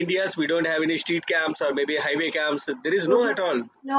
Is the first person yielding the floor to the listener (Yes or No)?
Yes